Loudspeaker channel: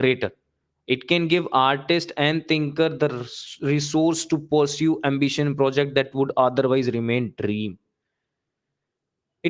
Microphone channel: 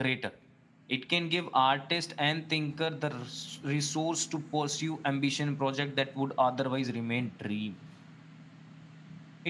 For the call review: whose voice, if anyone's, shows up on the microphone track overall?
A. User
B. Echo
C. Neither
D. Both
B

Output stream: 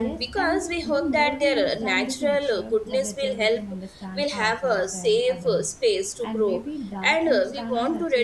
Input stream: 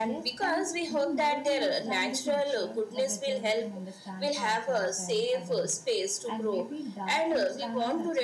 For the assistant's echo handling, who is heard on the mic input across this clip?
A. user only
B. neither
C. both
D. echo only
D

